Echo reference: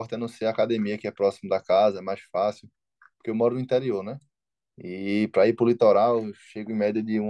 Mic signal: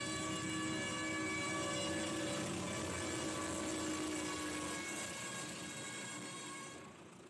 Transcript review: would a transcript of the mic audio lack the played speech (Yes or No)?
Yes